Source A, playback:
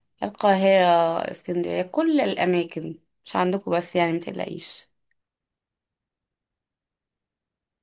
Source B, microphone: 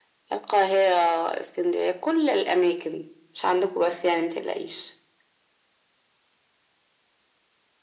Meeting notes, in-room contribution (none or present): none